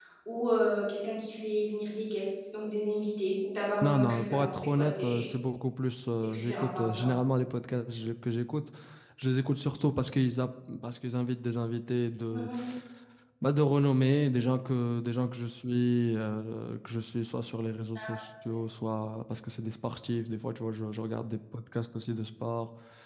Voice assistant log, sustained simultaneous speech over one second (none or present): present